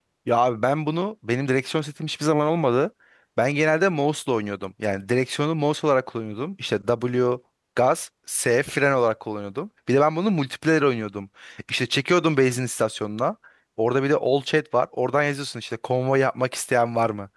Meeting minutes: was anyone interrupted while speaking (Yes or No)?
No